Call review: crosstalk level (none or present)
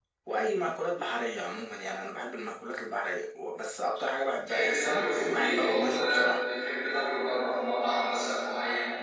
present